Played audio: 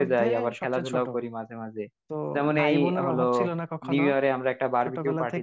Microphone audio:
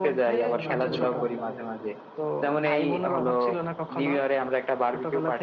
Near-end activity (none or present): present